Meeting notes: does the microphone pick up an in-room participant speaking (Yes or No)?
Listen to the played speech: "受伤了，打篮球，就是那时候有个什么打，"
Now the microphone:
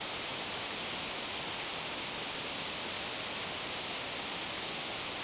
No